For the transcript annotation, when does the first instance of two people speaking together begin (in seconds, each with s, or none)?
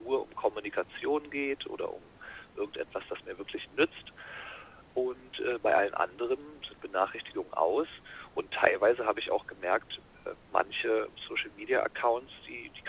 none